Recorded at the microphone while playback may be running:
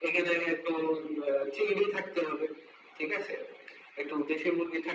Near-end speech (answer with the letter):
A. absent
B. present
A